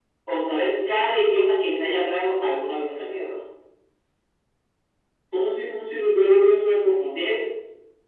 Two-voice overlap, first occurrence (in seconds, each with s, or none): none